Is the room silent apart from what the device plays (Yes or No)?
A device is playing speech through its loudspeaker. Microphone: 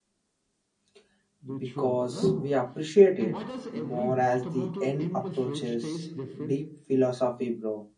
No